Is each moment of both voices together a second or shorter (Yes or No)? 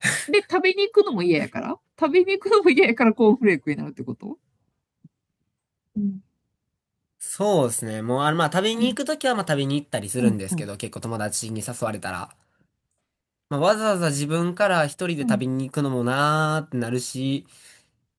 Yes